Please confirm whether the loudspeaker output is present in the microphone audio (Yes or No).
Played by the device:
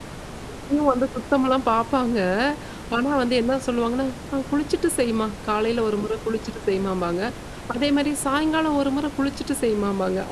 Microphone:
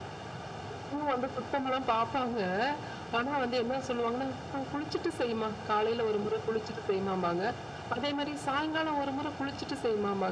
Yes